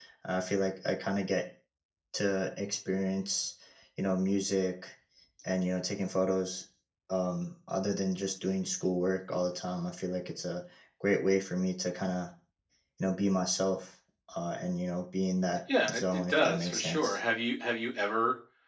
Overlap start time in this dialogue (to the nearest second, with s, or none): 16 s